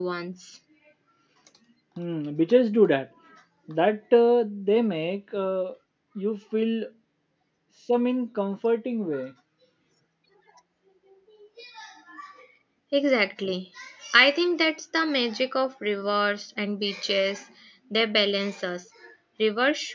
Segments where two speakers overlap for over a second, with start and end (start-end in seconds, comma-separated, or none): none